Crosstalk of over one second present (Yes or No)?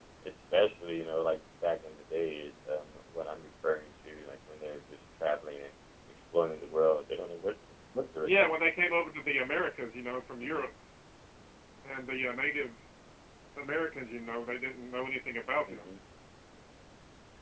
No